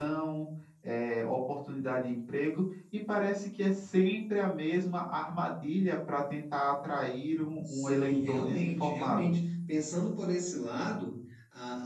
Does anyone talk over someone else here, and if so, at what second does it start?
7.7 s

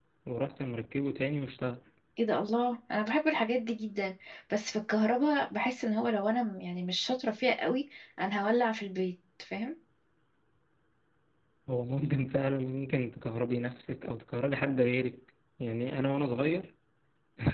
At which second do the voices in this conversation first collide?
none

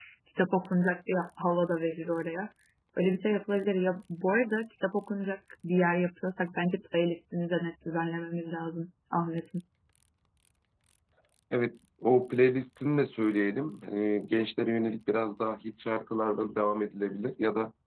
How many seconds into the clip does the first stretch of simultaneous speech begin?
none

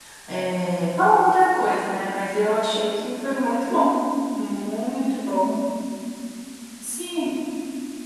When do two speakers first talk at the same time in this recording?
none

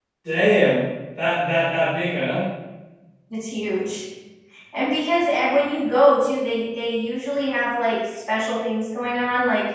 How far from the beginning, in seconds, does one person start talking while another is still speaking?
none

